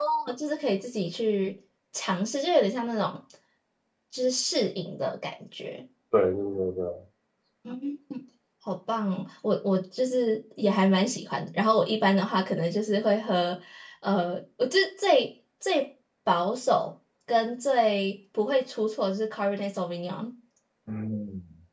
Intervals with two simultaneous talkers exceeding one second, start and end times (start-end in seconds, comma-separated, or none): none